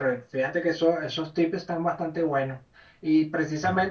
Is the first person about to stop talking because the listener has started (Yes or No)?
No